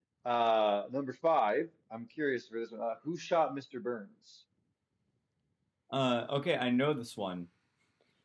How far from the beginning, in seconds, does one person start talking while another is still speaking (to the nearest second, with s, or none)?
none